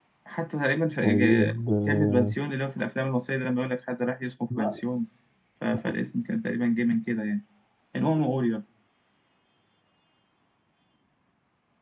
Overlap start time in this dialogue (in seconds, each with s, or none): 1.0 s